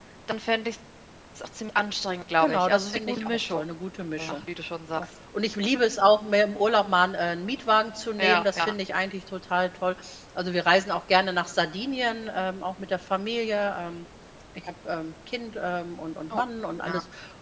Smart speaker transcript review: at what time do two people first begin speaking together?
2.4 s

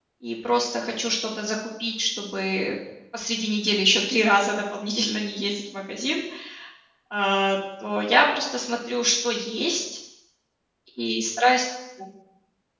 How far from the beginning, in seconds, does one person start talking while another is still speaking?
none

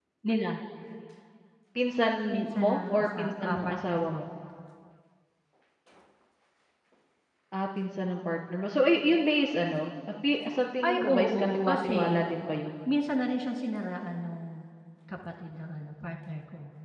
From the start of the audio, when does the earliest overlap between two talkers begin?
2.5 s

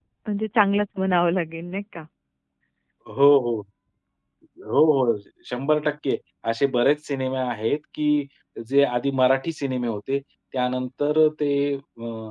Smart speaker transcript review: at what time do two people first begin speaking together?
none

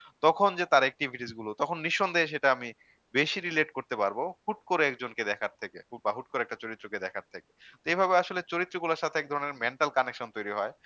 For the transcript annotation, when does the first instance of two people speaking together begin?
none

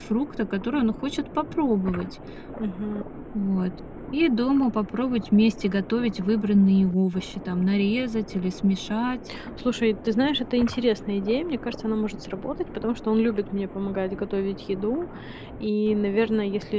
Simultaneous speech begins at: none

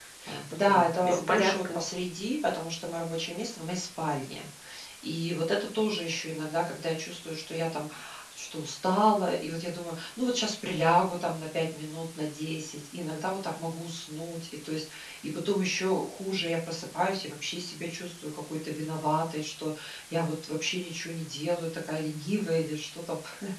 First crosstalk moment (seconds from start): 0.5 s

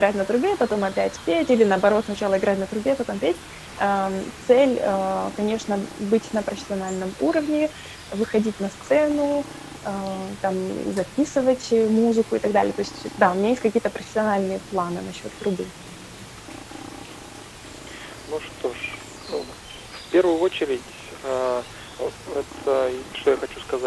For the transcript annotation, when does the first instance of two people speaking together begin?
none

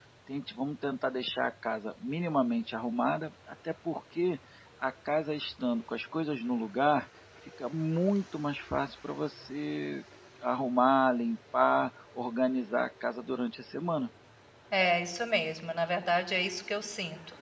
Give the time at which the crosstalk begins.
none

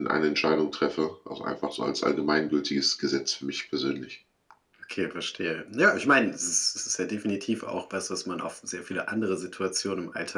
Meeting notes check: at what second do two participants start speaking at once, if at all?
none

